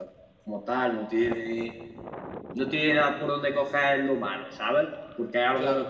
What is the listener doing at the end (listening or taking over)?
listening